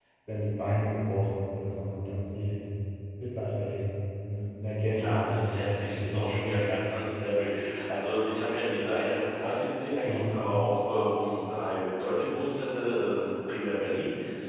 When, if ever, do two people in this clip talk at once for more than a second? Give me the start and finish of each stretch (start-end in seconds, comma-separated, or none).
4.9-6.5